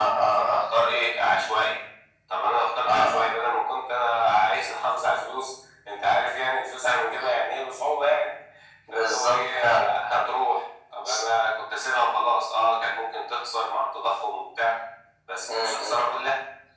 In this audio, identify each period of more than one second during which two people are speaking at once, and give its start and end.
8.9-10.2

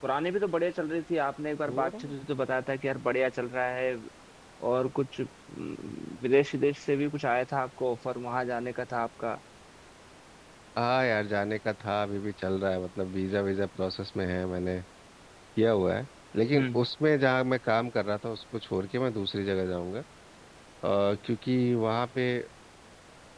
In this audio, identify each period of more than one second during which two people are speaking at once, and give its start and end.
none

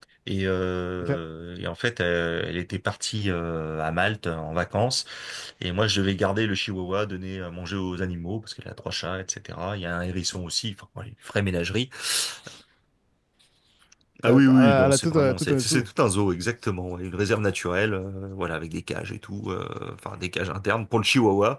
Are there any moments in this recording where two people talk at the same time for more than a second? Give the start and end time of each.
14.3-15.9

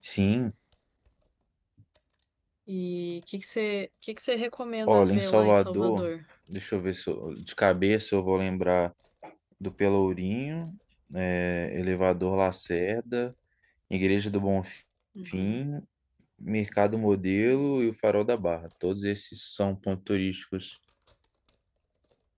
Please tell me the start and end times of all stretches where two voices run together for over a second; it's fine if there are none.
4.9-6.1

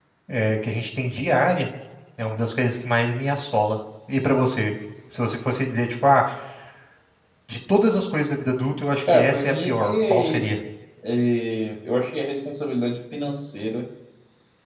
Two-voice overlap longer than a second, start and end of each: 9.1-10.5

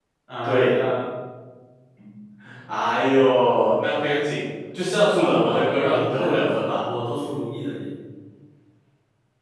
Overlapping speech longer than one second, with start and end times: 5.2-6.8

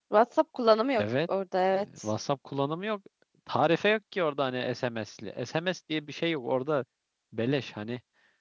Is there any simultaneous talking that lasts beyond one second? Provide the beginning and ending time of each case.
none

